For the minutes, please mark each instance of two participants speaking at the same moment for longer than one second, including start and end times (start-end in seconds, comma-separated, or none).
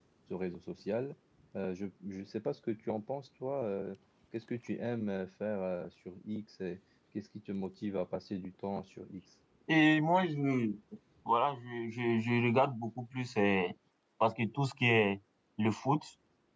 none